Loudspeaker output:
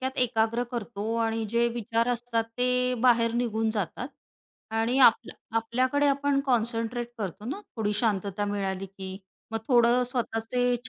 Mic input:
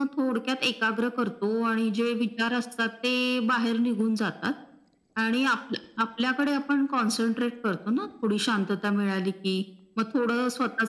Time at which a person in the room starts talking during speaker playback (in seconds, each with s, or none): none